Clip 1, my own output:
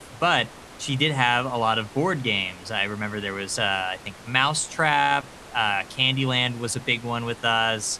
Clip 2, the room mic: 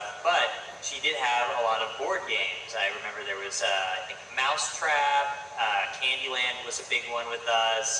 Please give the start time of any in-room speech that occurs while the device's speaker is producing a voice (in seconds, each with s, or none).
none